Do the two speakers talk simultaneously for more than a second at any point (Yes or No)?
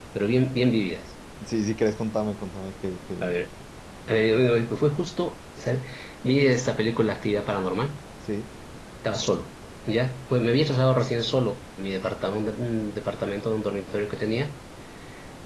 No